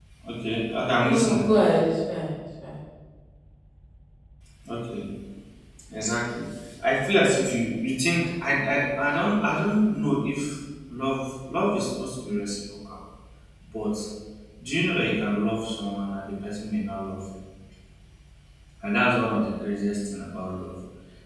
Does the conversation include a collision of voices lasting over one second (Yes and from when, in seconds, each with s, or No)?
No